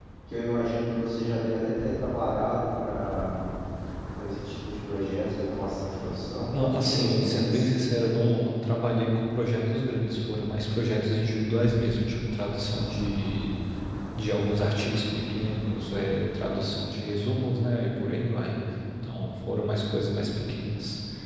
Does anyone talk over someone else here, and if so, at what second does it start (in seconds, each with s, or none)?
6.5 s